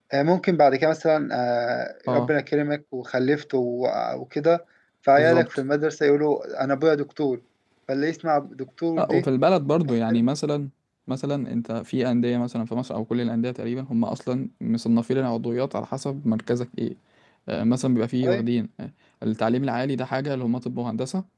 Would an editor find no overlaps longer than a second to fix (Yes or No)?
Yes